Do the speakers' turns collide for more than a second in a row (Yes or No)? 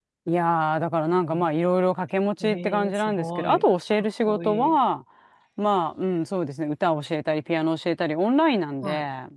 Yes